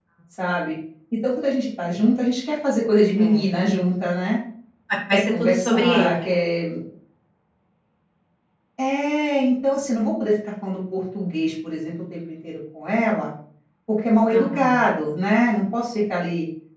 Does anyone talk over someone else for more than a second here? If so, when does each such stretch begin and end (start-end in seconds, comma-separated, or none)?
5.1-6.5